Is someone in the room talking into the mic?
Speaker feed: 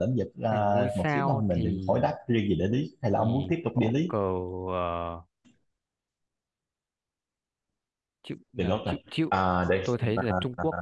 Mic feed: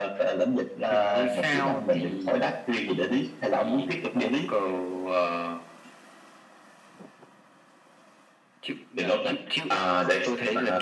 No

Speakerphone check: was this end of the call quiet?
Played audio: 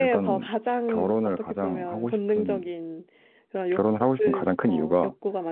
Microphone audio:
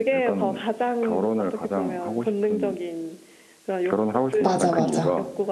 No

